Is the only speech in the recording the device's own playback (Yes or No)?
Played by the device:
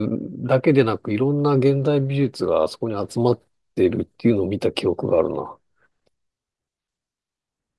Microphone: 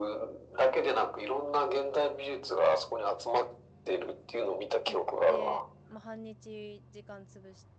No